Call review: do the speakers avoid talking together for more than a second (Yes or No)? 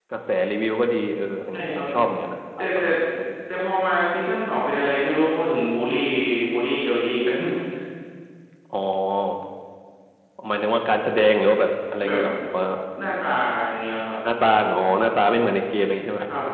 Yes